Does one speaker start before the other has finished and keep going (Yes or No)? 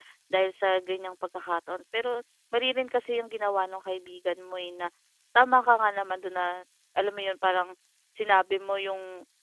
No